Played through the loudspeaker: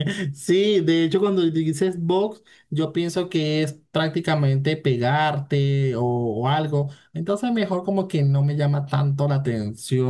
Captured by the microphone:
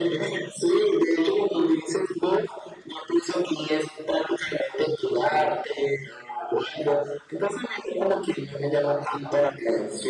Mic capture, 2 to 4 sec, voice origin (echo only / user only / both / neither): echo only